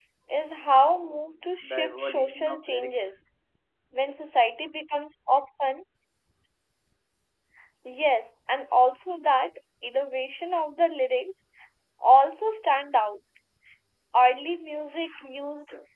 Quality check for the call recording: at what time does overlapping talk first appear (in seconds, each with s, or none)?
1.6 s